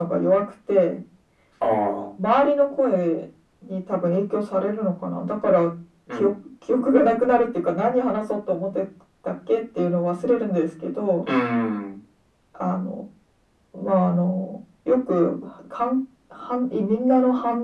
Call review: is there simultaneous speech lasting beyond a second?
No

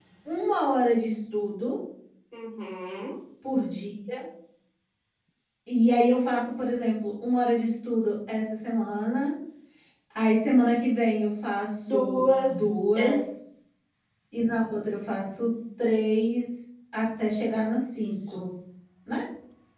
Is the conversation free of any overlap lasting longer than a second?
No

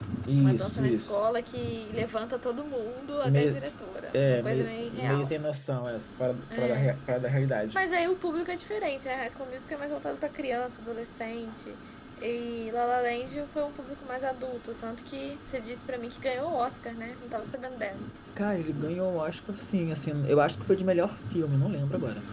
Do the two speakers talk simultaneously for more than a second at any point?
Yes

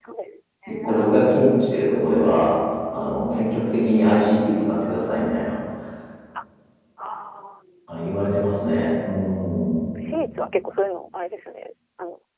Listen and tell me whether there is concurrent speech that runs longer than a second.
No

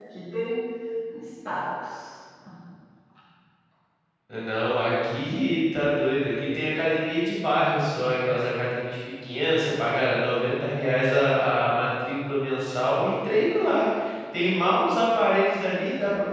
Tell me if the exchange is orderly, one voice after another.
Yes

